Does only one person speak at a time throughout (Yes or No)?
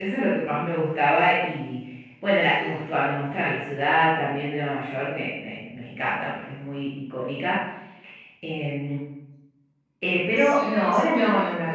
No